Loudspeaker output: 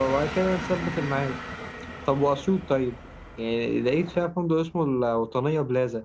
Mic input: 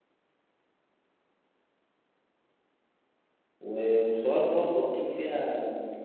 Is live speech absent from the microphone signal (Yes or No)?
No